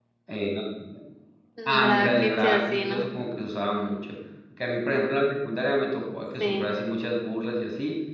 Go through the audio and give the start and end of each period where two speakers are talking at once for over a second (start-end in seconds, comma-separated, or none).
1.8-3.0